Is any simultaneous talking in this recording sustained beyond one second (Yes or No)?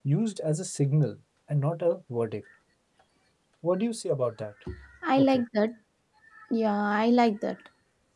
No